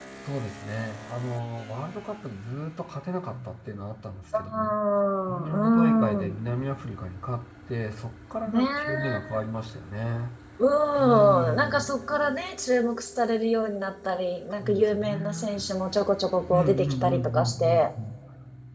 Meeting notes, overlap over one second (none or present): present